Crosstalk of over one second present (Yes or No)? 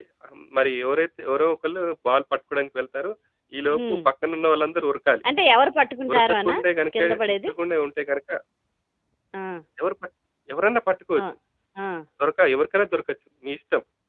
No